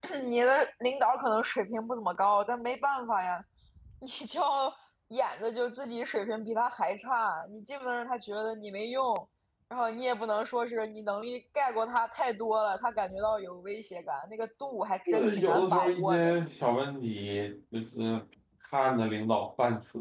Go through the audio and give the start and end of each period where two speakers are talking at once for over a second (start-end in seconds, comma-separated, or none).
15.1-16.3